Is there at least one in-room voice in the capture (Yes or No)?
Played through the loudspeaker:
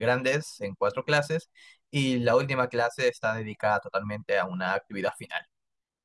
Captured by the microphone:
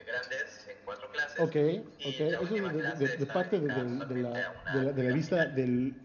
Yes